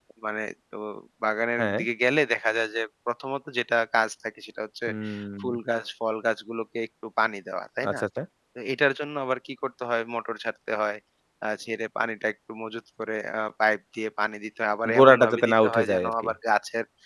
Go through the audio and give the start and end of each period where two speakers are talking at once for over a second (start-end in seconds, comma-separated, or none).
14.9-16.3